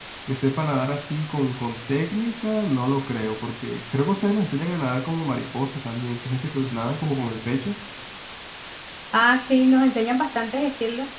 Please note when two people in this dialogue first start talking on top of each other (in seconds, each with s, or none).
none